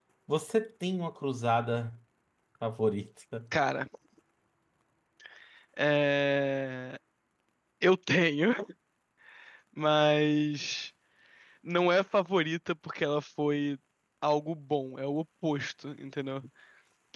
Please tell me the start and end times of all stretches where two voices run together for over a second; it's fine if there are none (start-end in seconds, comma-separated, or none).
none